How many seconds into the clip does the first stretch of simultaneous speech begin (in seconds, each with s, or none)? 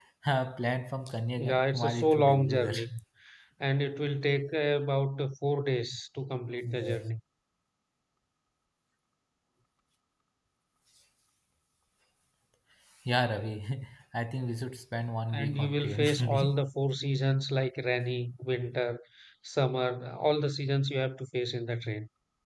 1.4 s